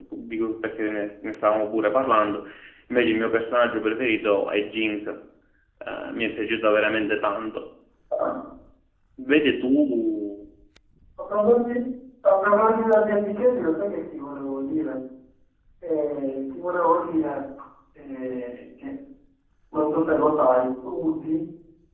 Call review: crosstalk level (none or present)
none